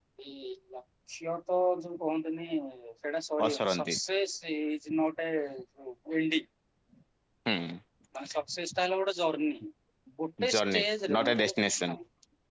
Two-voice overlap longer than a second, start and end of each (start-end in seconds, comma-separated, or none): 10.5-11.9